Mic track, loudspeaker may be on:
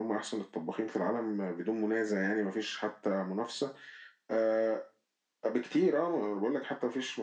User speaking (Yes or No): No